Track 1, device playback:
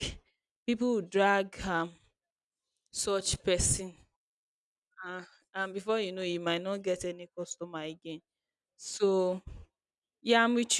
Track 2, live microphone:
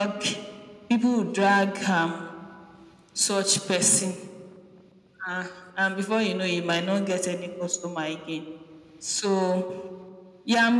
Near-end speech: none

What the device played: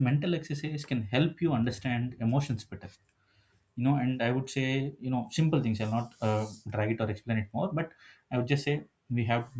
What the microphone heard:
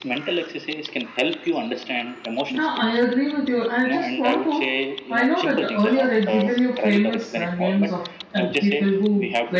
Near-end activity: present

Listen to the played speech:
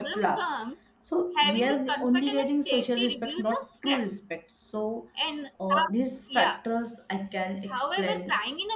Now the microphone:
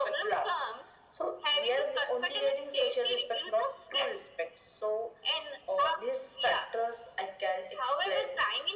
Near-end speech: none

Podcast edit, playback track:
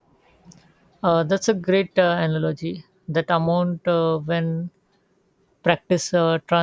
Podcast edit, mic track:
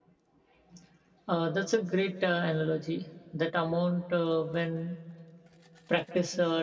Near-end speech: none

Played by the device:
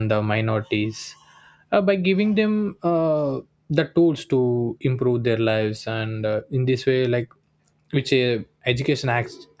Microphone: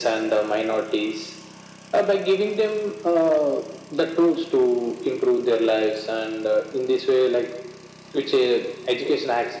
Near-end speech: none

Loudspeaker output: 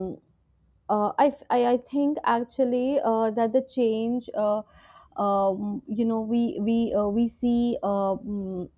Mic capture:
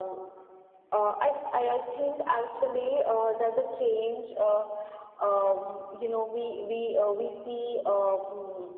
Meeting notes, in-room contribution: none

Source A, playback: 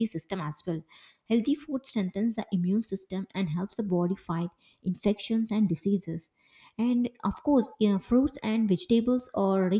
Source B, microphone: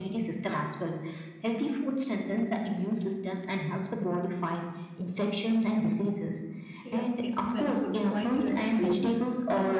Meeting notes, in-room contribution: present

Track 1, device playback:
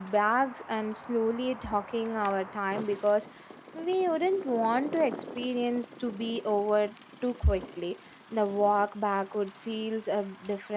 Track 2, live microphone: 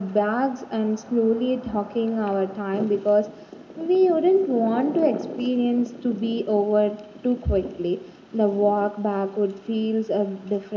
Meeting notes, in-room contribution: none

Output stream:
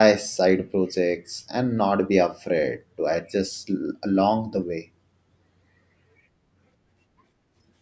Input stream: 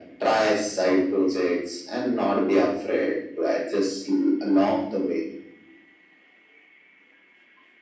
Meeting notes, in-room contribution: none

